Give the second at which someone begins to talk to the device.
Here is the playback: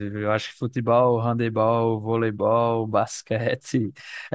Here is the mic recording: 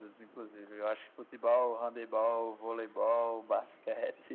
none

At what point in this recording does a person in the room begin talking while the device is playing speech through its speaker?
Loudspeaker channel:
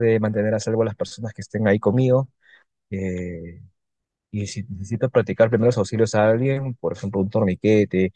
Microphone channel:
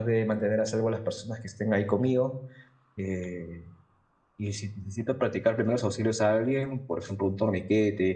none

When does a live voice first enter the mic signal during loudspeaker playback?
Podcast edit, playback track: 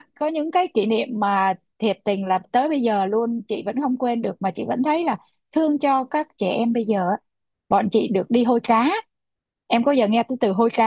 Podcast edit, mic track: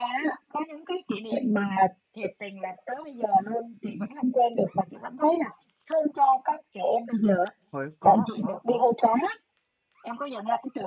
7.7 s

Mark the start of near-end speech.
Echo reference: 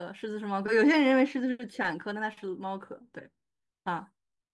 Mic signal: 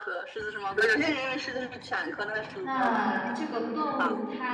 2.6 s

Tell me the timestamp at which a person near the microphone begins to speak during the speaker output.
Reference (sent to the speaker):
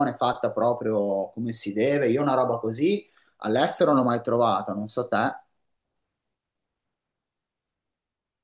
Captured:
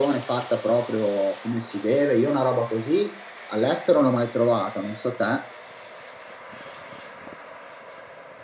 none

